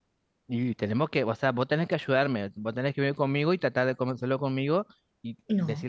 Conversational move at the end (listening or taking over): listening